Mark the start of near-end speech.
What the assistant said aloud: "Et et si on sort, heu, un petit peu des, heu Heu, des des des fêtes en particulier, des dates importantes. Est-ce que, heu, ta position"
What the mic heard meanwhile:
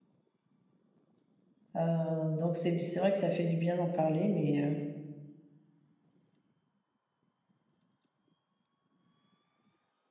1.8 s

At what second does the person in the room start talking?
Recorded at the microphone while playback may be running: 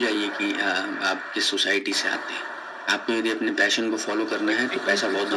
4.4 s

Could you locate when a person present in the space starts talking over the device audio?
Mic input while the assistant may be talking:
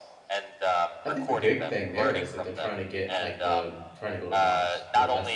1.1 s

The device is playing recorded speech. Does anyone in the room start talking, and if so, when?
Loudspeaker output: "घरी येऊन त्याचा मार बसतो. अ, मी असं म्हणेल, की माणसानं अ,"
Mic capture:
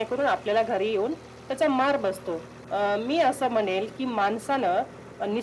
none

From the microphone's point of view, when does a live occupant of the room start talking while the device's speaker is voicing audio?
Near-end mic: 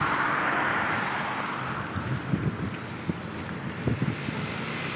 none

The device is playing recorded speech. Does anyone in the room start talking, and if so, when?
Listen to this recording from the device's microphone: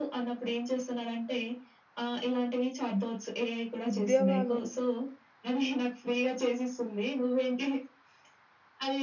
3.9 s

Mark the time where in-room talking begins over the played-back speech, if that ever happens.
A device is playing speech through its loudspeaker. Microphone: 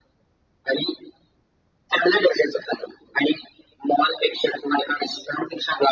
none

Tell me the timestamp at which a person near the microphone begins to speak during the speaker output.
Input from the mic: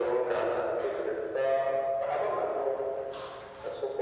none

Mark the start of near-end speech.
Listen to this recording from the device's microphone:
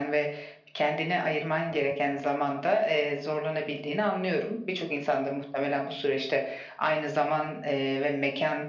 none

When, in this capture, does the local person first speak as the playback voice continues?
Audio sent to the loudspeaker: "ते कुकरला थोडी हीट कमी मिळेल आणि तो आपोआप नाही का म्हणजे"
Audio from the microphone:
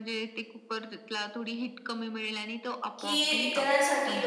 3.0 s

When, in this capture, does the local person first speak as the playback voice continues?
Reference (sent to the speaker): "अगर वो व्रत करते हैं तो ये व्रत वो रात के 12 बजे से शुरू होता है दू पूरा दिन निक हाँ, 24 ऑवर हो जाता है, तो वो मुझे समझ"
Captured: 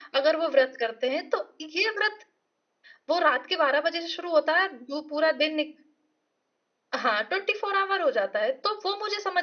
none

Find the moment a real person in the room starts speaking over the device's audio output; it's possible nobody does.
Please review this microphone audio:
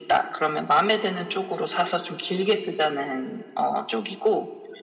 none

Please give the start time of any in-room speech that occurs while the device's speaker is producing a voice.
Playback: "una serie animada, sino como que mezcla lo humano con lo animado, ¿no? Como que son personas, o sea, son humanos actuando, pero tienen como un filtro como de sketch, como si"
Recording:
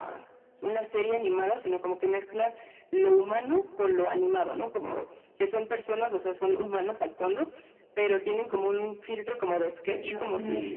9.8 s

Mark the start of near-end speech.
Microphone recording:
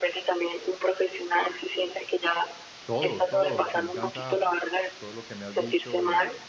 2.8 s

